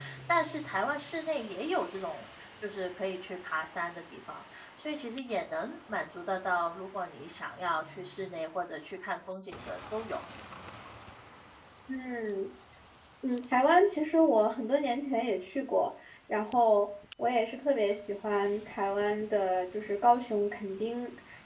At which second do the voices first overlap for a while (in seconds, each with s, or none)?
none